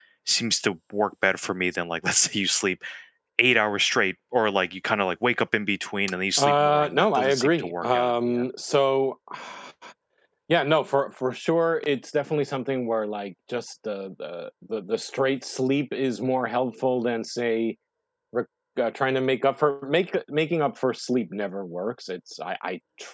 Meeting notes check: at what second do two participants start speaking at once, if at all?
6.4 s

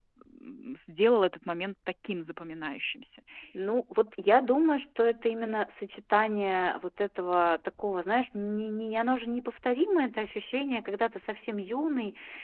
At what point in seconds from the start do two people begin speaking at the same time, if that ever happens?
none

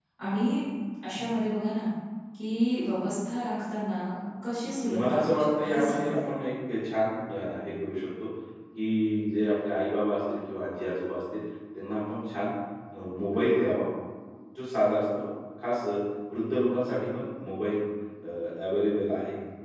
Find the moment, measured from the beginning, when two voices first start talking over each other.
5.0 s

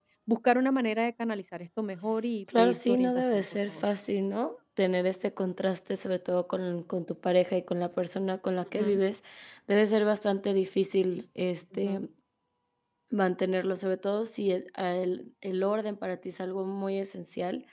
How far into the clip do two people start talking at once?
2.6 s

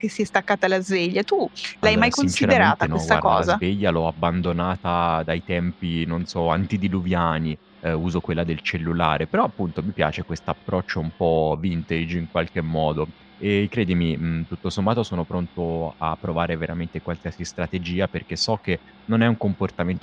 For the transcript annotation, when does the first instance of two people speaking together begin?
1.8 s

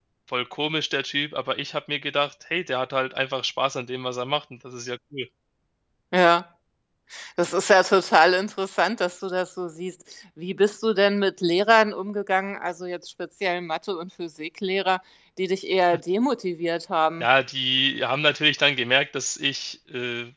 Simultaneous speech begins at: none

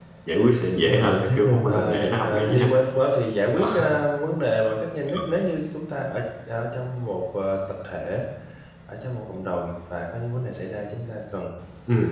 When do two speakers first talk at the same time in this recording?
0.7 s

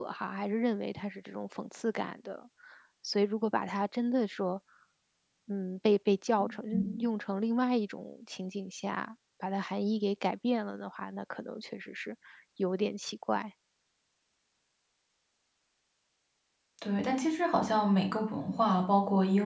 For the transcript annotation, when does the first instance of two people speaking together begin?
none

